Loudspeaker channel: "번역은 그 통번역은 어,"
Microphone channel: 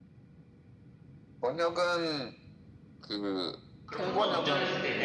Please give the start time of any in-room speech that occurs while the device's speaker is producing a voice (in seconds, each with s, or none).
3.9 s